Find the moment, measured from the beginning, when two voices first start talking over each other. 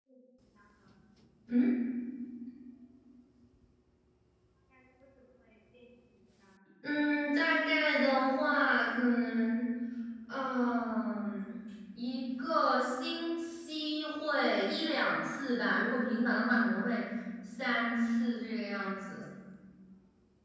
none

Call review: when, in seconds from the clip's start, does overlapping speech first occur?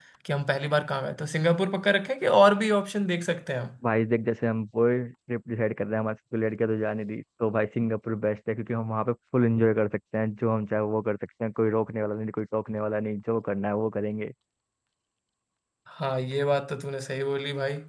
none

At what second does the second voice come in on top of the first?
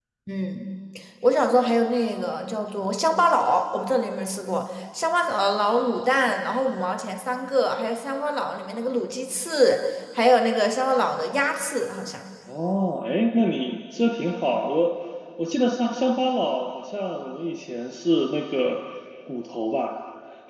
none

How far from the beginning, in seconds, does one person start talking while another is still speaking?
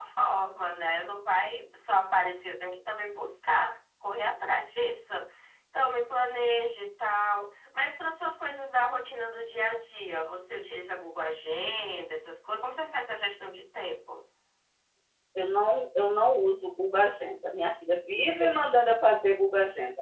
none

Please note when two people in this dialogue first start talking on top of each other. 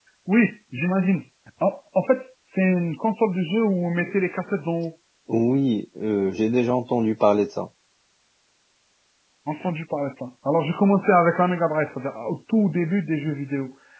none

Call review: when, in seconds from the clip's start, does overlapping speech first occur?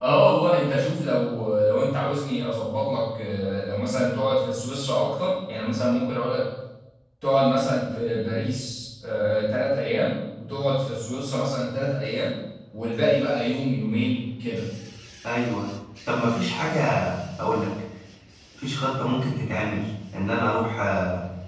none

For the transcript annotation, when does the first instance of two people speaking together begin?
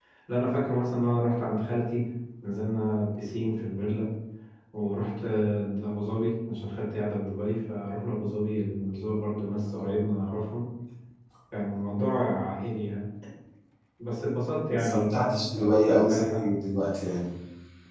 14.7 s

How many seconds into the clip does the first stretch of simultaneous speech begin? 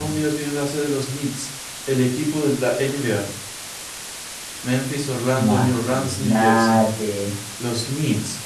5.3 s

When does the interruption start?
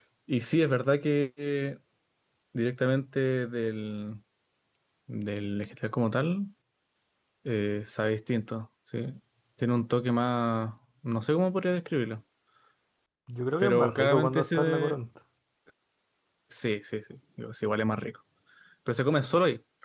13.6 s

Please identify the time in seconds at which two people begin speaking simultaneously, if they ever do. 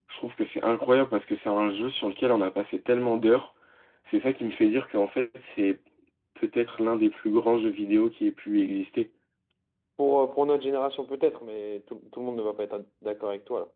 none

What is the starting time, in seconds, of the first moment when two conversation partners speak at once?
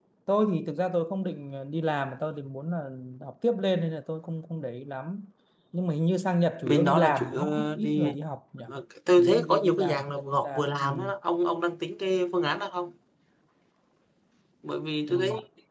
6.7 s

